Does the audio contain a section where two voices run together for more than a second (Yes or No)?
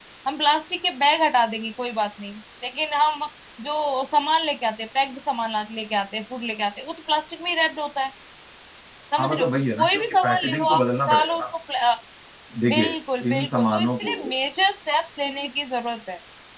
Yes